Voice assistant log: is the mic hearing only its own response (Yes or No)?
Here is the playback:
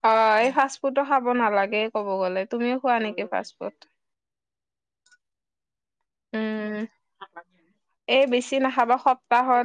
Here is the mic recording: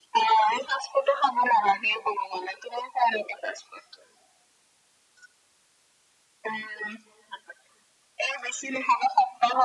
Yes